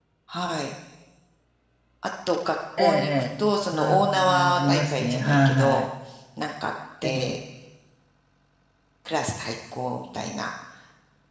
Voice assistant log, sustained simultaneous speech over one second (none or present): present